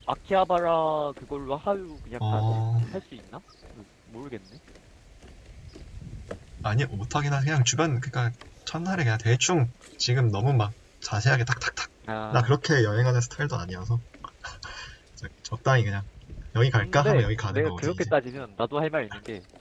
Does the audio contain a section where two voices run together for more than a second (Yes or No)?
Yes